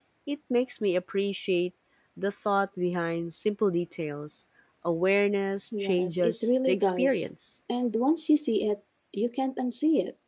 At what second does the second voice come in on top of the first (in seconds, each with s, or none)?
5.7 s